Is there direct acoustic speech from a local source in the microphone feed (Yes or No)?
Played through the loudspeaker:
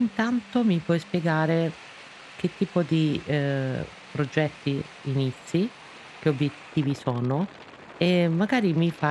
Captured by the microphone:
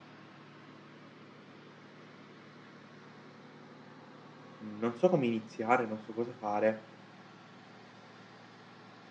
Yes